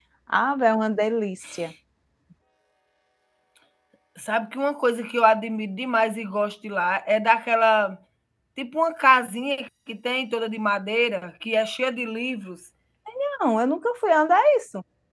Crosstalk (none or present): none